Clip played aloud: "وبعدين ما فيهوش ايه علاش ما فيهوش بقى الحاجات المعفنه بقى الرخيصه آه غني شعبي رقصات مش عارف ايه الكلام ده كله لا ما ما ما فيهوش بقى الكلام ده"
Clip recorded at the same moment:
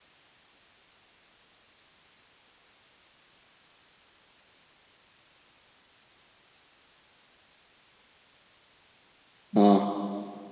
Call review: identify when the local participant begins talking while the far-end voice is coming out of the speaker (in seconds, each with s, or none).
9.6 s